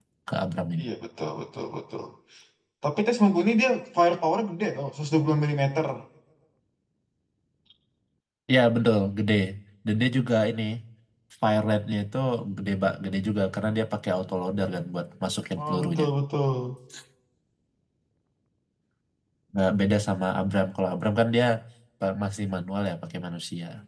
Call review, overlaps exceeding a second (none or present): none